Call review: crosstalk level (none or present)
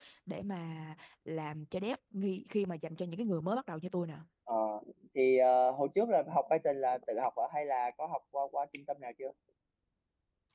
none